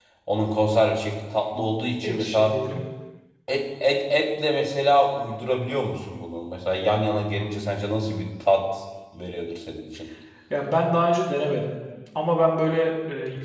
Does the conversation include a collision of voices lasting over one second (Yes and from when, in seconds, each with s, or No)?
No